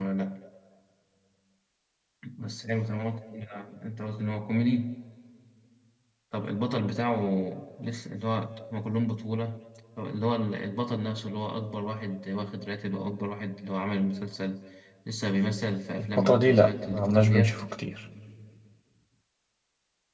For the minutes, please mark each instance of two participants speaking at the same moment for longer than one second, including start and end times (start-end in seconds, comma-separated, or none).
16.0-17.6